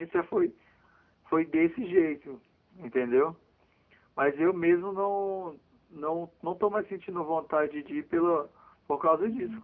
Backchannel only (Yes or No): No